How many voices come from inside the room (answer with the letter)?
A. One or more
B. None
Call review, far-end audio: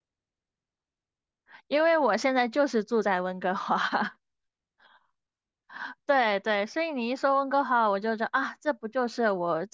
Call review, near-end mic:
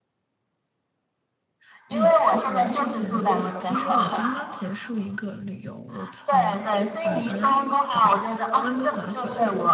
A